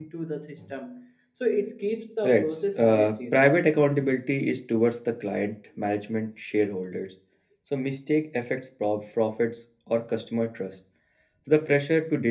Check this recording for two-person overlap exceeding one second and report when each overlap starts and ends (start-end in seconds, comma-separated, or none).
2.2-3.5